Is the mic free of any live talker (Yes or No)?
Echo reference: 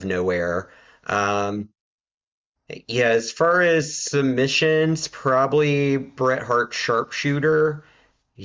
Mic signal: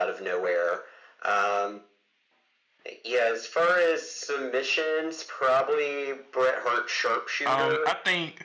No